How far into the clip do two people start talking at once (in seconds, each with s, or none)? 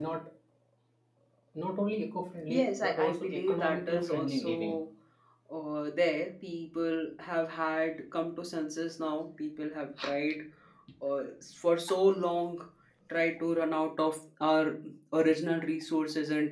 2.5 s